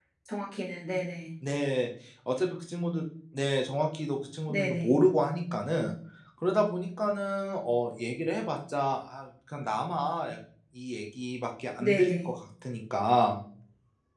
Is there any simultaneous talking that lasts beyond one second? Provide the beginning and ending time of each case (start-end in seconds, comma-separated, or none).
none